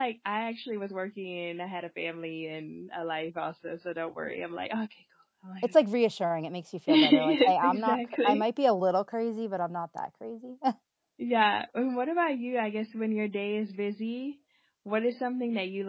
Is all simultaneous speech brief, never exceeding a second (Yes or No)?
No